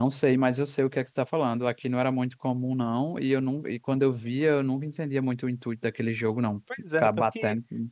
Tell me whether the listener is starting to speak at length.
Yes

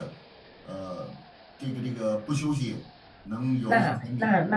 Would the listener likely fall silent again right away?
No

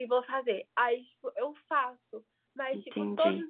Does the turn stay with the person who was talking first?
Yes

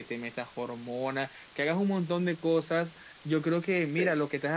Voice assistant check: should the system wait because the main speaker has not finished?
Yes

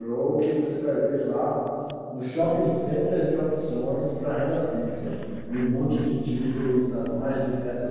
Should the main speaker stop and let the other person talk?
No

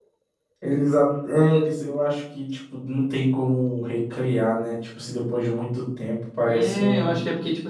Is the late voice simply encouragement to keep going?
No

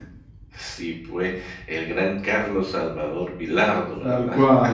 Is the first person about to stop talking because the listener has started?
Yes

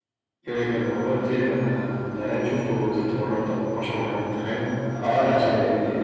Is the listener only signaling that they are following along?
No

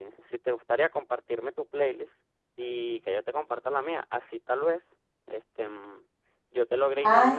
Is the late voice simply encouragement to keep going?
Yes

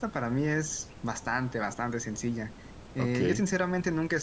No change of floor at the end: Yes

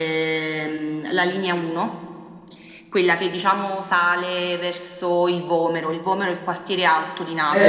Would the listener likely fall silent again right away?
No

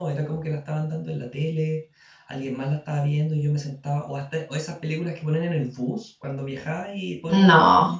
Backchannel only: Yes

